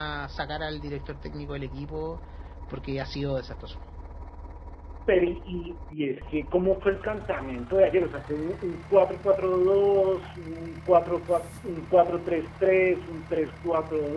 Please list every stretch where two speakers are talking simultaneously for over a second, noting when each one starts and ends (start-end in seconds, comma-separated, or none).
none